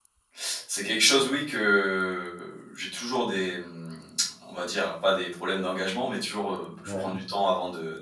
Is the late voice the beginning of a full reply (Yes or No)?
No